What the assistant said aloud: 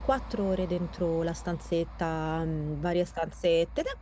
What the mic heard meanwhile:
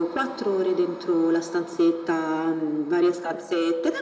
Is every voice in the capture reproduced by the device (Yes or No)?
Yes